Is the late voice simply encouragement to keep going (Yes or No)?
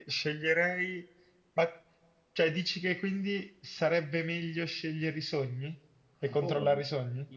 No